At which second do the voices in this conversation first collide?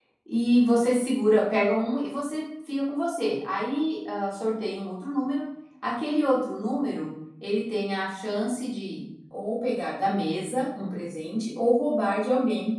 none

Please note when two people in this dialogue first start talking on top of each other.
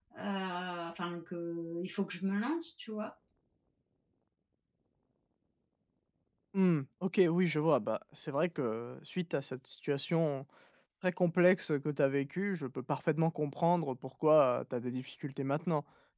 none

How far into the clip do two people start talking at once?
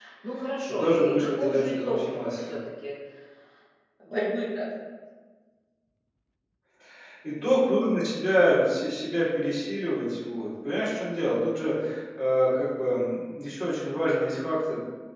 1 s

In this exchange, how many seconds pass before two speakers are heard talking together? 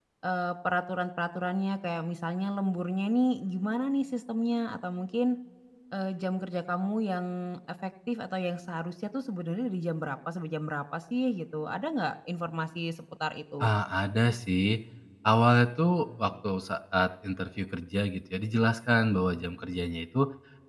none

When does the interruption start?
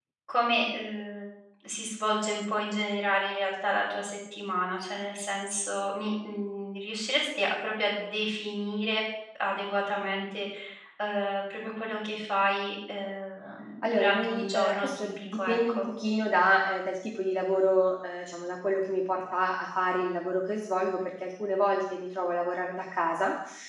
14 s

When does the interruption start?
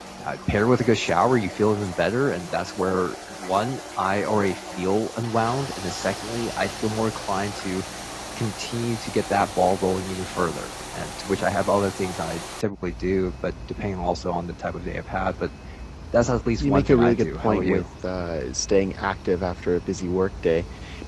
17 s

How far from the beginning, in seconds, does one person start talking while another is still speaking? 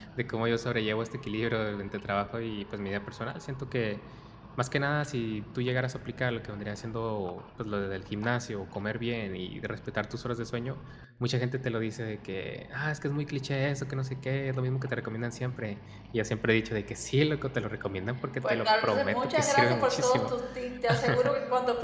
18 s

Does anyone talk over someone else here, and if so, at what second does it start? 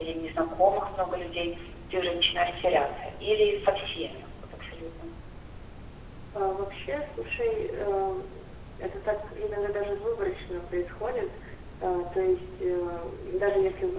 none

